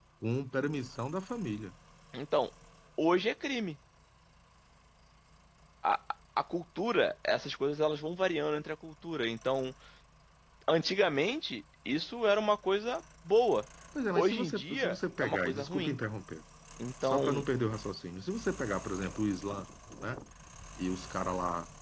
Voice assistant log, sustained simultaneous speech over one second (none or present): present